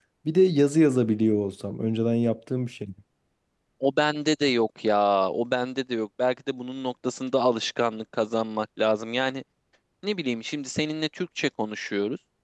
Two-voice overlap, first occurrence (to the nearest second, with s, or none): none